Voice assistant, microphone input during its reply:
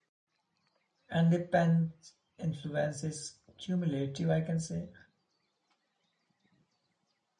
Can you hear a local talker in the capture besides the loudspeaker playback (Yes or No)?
Yes